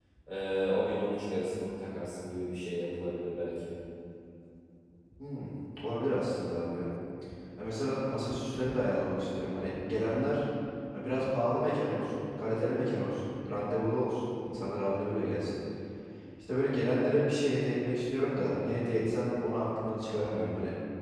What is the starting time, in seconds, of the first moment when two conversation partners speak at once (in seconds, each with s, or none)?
none